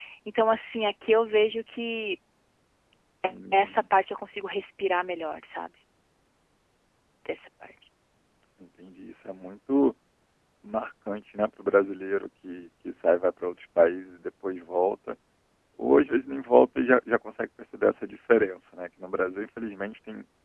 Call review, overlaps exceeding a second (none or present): none